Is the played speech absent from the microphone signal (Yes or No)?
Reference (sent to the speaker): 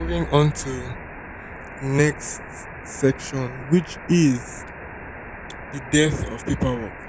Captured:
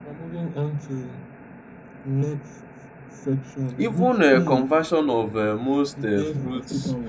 No